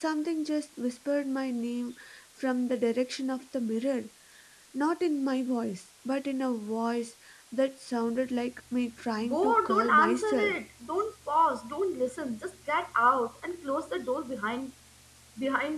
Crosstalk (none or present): present